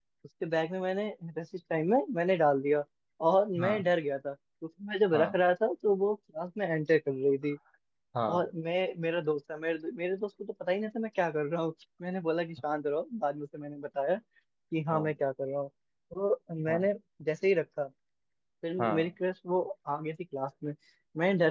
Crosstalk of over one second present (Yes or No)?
No